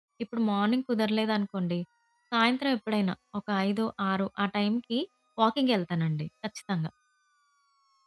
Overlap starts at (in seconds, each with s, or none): none